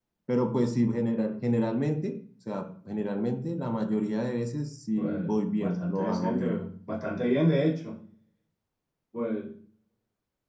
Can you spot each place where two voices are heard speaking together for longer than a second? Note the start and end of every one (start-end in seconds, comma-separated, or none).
5.0-6.6